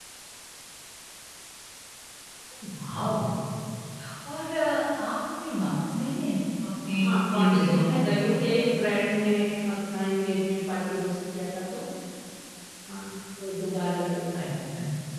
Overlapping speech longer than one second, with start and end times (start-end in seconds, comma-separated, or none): 6.8-8.1